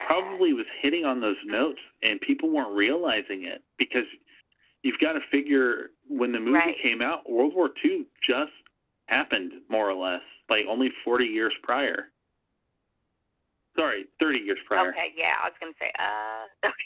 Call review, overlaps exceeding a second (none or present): none